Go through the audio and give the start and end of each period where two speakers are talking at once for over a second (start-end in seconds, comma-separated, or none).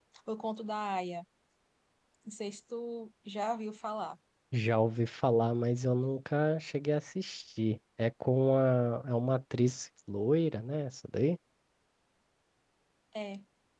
none